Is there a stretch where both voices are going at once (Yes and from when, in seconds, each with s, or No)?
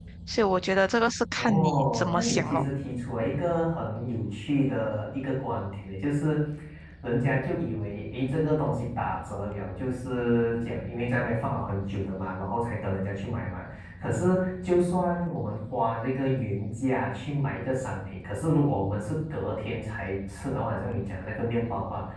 Yes, from 1.3 s